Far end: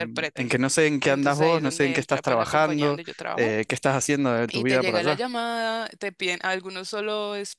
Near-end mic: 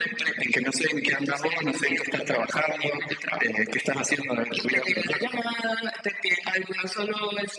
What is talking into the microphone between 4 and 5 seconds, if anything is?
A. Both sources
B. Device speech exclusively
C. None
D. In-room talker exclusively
B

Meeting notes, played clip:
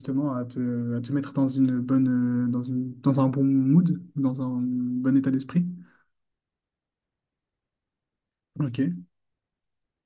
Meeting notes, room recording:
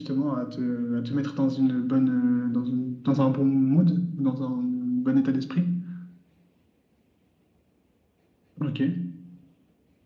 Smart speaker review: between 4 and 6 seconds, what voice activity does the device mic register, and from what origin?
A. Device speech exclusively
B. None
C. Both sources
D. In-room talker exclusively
A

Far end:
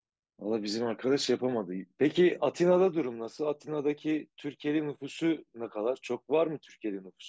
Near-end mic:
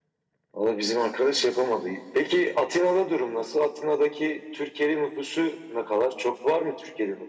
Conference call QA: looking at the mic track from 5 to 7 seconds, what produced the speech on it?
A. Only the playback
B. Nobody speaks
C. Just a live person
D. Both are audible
A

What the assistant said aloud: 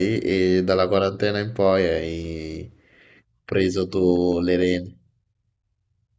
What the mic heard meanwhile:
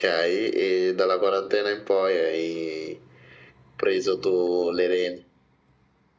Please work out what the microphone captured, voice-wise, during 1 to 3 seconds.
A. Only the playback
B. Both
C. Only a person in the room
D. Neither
A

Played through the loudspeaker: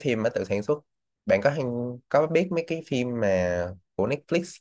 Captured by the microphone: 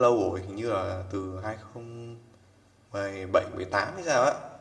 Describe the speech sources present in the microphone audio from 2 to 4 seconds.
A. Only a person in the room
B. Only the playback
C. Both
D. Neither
A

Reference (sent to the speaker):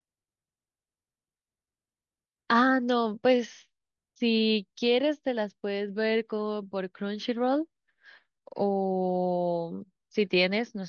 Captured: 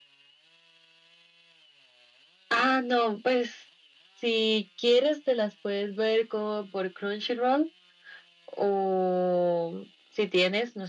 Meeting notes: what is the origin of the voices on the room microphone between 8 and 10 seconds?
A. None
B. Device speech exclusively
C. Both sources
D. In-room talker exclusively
B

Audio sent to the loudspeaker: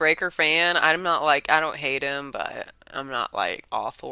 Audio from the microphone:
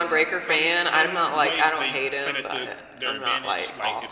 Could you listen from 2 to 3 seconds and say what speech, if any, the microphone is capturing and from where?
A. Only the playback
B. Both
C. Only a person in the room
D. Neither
B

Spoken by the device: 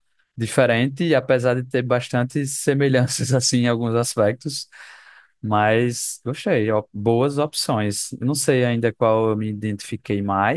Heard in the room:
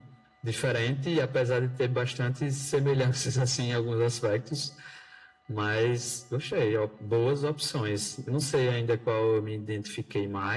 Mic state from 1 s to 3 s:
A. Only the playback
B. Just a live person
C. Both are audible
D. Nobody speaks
A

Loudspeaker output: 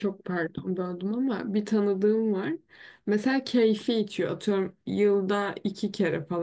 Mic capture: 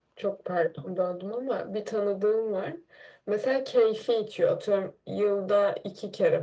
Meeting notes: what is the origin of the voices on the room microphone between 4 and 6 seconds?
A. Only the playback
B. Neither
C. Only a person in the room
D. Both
A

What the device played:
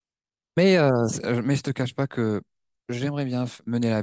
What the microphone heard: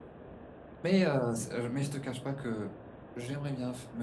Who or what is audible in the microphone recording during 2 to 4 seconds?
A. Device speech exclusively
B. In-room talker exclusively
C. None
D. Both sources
A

